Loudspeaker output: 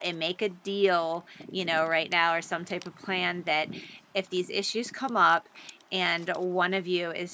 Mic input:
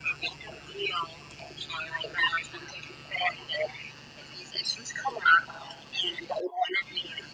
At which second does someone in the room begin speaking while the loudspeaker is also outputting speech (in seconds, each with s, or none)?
none